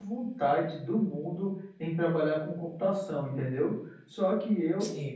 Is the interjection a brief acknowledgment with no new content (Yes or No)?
Yes